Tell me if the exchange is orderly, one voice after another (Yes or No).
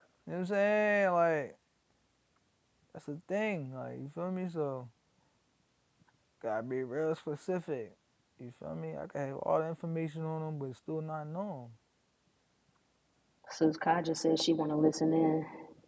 Yes